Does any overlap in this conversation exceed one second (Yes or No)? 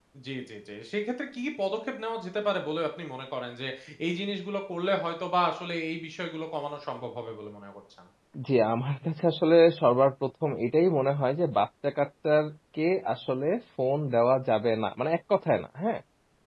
No